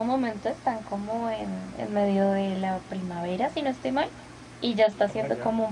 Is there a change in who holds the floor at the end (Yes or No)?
No